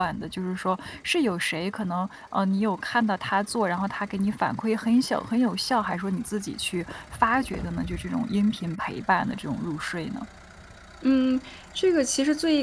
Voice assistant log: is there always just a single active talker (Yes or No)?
Yes